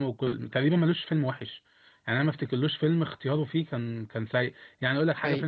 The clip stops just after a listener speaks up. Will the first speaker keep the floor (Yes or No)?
Yes